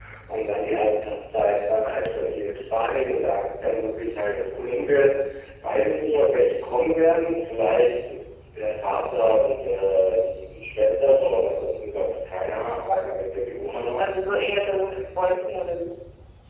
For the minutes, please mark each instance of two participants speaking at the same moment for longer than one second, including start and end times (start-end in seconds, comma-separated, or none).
none